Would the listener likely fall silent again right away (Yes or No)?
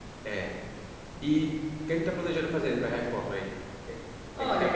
No